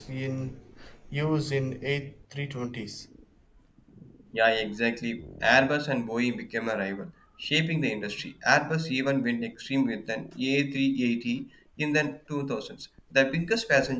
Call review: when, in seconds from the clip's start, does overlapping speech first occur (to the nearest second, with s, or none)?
none